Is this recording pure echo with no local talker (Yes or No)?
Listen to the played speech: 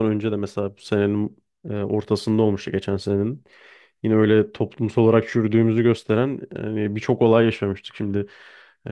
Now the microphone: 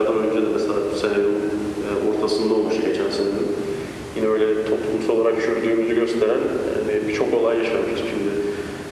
Yes